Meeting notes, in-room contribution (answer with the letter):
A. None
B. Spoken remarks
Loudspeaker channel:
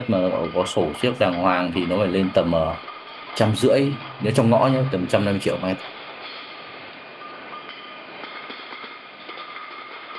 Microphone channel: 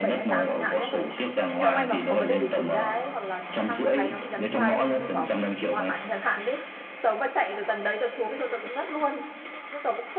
B